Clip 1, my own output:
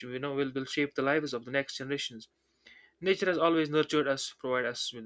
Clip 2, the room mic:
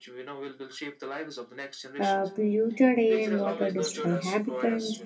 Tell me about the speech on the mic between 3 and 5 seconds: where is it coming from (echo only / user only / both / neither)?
both